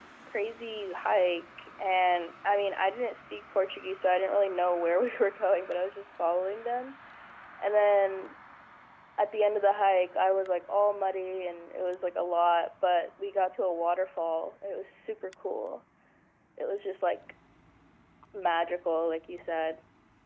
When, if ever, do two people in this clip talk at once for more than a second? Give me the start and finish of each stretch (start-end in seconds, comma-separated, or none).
none